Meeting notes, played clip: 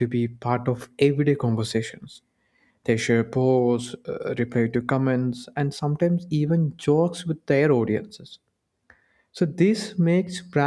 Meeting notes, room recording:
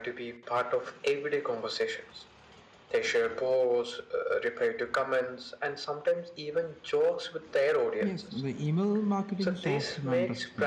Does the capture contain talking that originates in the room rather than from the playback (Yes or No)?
Yes